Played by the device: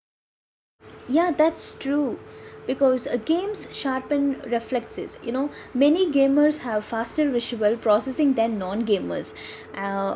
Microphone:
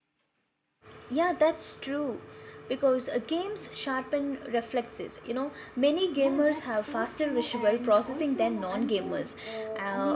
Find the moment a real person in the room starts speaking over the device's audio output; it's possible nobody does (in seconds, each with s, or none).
6.2 s